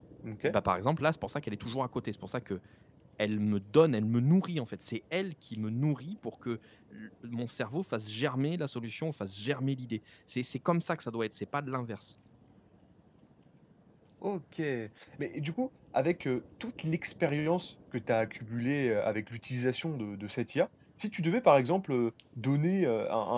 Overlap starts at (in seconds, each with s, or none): none